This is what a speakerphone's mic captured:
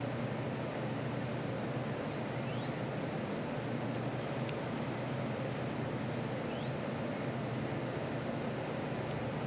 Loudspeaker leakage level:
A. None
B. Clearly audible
A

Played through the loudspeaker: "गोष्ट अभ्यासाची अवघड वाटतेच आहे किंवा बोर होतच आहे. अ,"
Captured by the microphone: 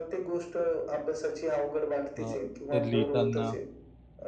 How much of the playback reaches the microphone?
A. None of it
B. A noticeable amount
B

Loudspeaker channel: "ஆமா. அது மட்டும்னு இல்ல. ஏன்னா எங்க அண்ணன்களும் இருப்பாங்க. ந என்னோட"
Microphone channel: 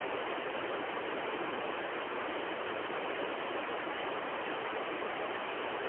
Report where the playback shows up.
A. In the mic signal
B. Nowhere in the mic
B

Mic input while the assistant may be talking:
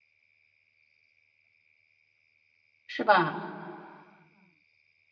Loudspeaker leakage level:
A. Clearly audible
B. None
B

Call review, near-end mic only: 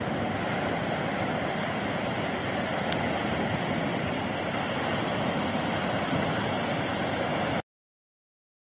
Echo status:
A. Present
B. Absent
B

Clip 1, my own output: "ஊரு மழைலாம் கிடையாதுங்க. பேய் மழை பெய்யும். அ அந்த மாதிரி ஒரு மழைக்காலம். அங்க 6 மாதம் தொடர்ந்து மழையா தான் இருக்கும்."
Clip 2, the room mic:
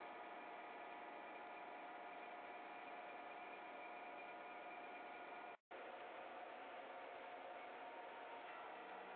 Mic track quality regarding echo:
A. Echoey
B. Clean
B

